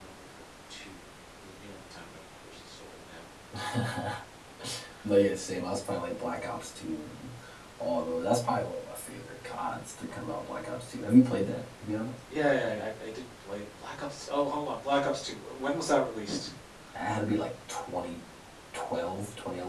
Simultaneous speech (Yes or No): No